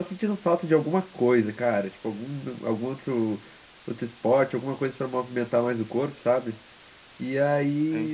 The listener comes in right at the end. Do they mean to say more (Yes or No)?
No